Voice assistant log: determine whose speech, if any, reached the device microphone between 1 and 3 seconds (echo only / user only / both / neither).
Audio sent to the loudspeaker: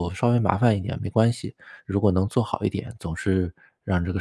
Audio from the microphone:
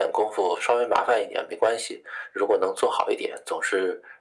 echo only